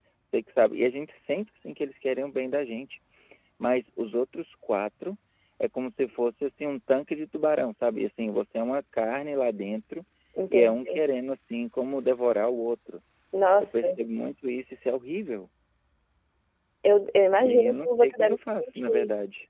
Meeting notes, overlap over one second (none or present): present